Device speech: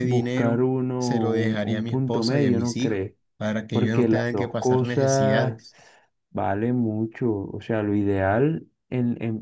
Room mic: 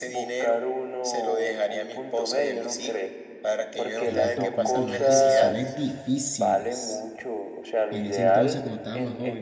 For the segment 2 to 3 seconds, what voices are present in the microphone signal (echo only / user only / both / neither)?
echo only